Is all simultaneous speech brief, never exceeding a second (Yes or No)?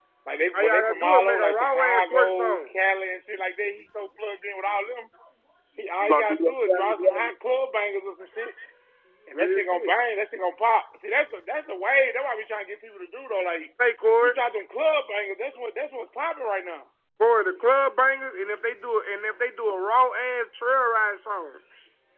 No